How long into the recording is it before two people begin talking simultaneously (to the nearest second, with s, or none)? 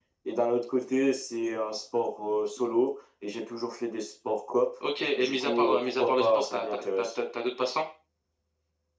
5 s